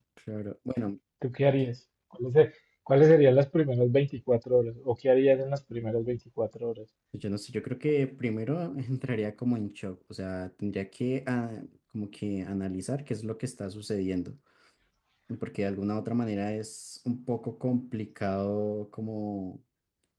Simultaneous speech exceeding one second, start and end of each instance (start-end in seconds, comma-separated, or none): none